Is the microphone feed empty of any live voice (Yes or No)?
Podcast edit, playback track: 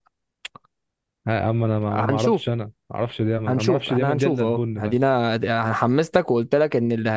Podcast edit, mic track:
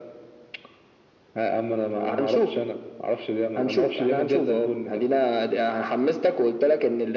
Yes